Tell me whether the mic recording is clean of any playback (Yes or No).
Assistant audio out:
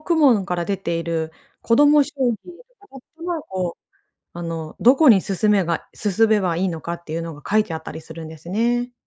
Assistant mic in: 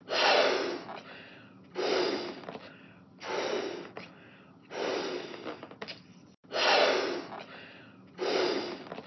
Yes